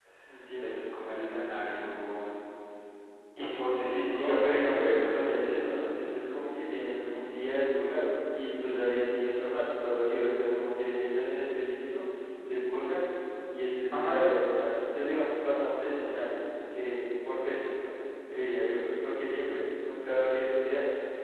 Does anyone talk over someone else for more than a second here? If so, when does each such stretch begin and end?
3.8-5.1

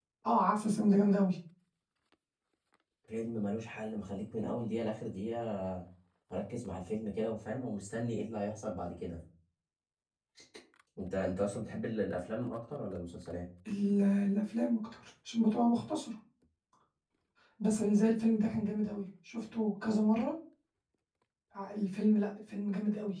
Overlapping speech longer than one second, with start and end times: none

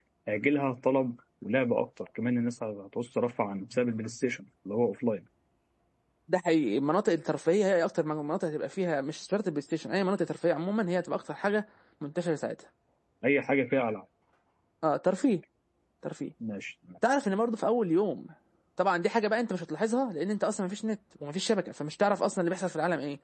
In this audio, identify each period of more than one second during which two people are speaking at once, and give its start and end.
none

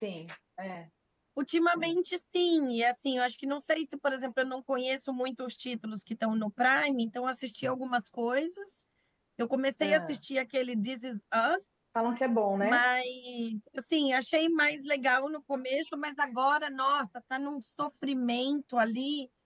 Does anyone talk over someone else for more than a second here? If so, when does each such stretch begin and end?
none

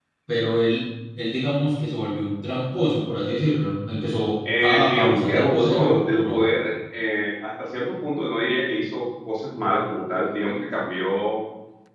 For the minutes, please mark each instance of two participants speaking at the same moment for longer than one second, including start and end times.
4.6-6.4

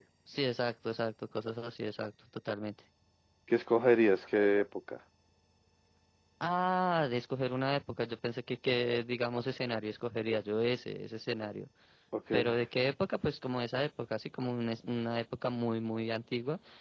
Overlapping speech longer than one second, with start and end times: none

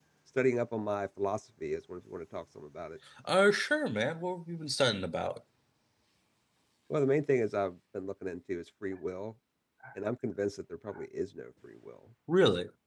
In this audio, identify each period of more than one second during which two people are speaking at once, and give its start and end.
none

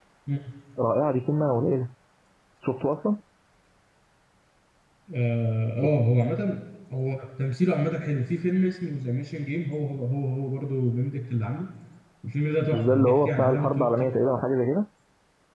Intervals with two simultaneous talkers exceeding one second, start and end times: 12.7-13.9

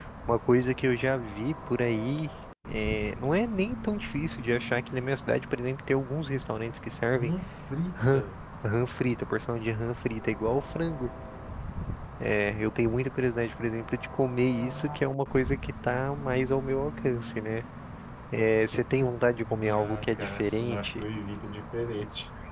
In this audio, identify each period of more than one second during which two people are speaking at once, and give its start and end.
19.5-21.0

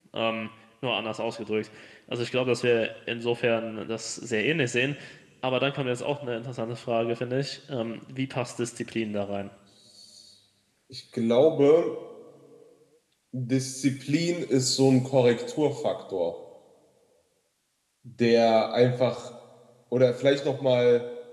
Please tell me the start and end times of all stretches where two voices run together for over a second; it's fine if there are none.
none

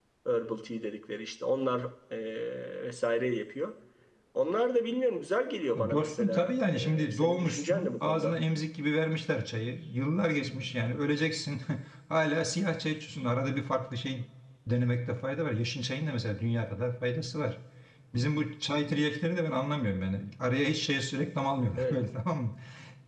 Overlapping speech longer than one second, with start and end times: 5.8-8.4

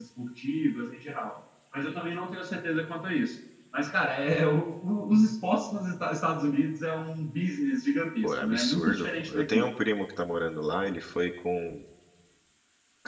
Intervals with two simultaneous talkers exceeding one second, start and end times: 8.2-9.7

